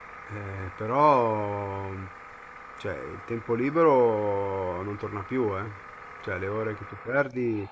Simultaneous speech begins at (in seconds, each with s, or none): none